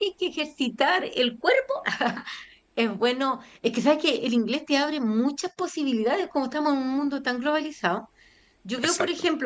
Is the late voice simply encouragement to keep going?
Yes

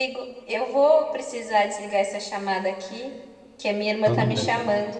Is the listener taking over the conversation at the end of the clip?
No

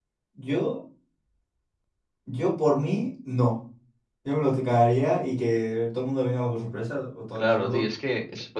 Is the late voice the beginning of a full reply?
Yes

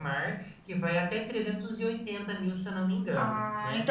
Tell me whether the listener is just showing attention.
No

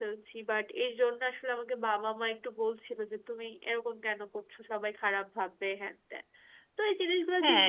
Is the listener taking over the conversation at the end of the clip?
Yes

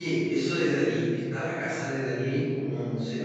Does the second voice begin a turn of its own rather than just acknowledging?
Yes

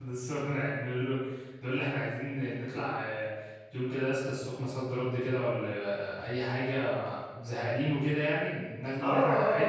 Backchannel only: No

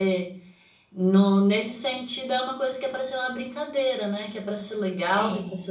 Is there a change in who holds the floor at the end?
No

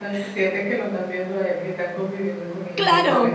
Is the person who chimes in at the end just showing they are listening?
No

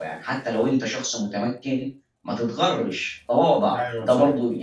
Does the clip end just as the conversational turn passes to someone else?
No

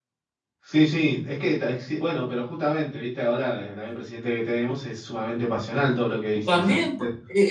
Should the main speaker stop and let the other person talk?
Yes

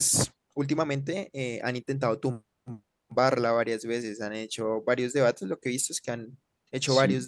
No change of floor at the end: Yes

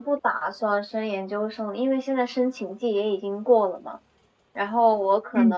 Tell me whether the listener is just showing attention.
Yes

